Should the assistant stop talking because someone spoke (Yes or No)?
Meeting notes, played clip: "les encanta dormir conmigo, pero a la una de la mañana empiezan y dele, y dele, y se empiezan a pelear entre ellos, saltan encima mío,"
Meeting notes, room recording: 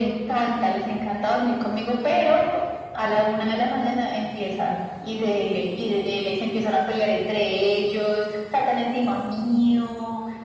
No